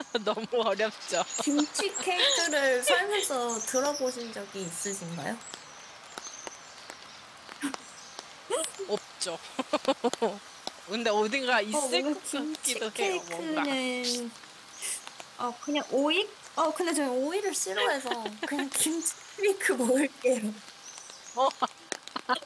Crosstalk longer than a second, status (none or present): present